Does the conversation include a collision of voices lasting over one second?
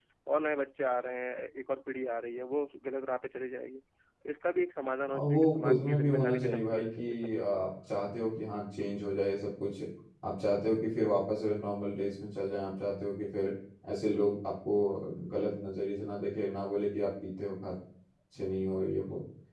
Yes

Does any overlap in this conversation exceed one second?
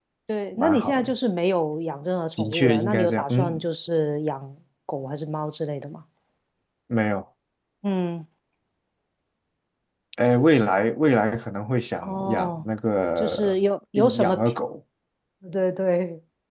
Yes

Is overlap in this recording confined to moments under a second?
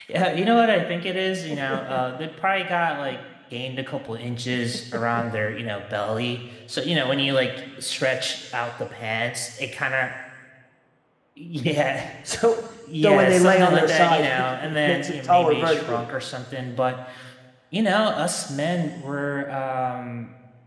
No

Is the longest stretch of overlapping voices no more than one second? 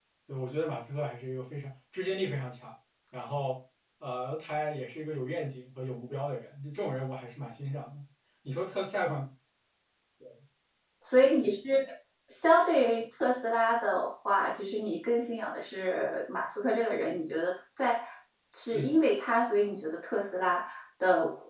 Yes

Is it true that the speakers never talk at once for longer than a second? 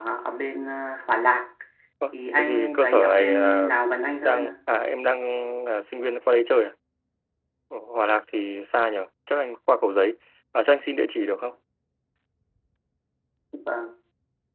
No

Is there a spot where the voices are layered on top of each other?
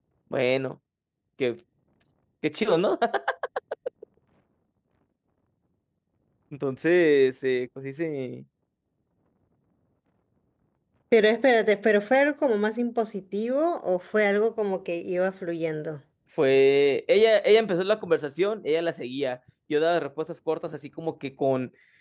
No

